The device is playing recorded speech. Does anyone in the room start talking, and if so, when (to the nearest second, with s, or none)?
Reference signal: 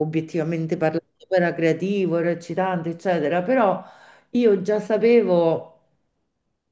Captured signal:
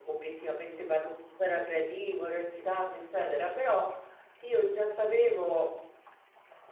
none